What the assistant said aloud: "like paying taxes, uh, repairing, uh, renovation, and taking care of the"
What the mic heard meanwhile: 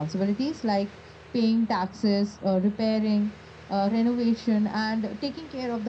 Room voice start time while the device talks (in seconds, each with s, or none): none